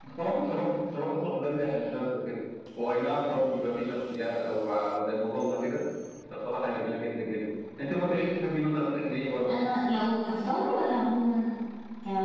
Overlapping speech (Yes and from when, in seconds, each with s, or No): No